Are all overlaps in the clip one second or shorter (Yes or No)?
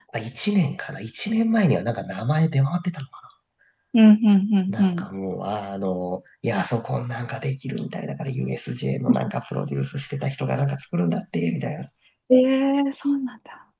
Yes